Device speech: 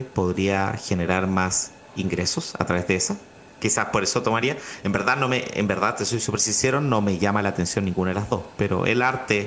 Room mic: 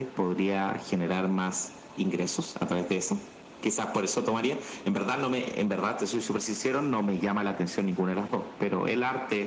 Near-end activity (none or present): none